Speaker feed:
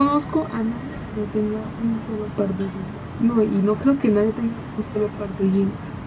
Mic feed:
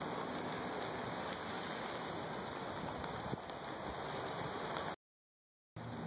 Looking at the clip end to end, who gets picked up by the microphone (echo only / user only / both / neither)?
neither